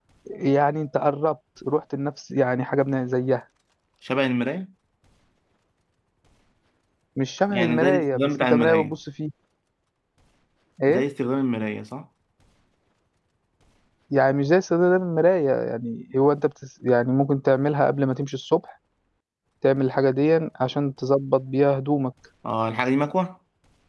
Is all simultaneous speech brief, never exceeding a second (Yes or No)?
No